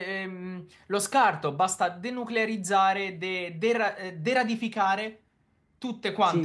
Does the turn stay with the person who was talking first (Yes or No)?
No